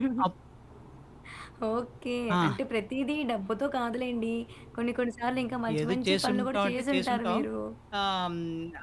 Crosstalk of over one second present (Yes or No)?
Yes